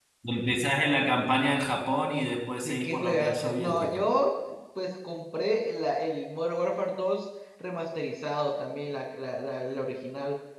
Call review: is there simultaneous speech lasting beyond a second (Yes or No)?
Yes